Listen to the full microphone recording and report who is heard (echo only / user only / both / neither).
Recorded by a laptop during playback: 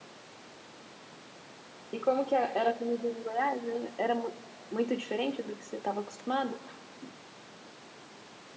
user only